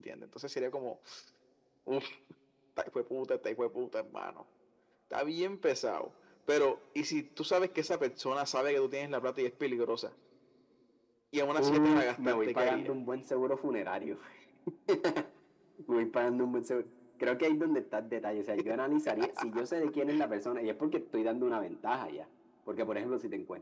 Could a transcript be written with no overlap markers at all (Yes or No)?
No